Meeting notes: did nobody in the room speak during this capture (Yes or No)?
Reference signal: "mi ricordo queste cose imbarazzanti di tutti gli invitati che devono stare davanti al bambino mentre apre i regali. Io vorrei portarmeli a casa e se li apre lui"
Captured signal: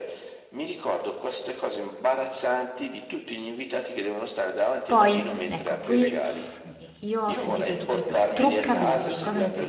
No